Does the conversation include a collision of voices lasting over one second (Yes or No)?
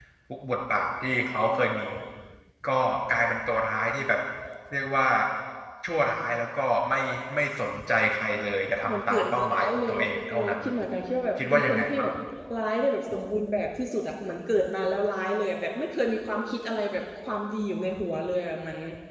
Yes